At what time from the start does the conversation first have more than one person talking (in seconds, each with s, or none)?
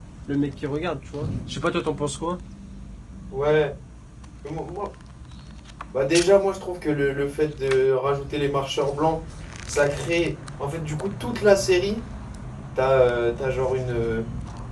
none